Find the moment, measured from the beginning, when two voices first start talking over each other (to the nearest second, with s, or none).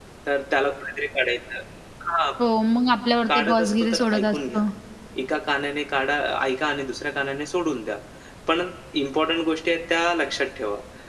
3 s